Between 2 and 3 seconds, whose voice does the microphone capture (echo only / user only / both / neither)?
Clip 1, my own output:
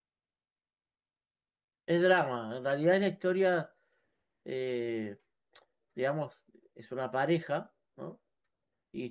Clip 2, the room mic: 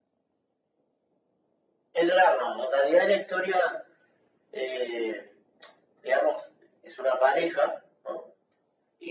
echo only